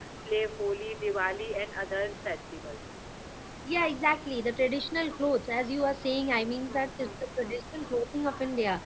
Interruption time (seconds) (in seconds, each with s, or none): 6.3 s